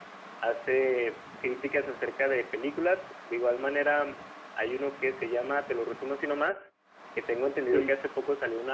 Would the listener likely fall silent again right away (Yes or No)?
Yes